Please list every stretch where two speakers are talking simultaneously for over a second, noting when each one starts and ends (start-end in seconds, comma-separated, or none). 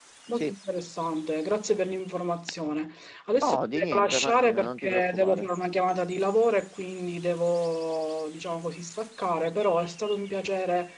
3.4-5.5